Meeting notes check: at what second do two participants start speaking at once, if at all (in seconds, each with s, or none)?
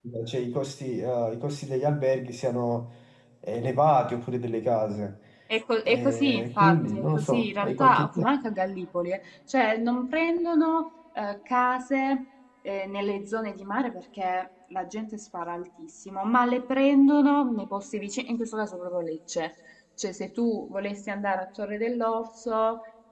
5.8 s